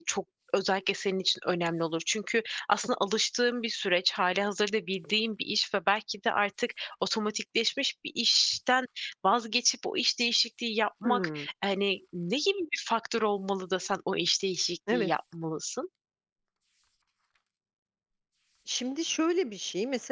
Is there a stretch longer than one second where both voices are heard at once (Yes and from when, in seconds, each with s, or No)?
No